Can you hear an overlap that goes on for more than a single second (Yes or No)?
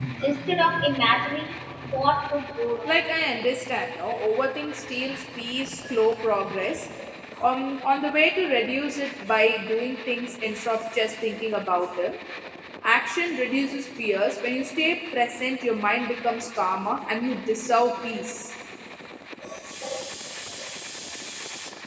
No